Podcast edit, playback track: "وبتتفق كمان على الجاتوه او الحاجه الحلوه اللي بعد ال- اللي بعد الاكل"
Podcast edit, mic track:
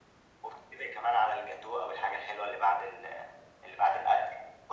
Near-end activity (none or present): none